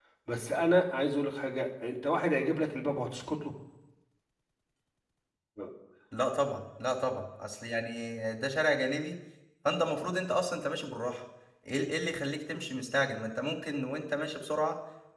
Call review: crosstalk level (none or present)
none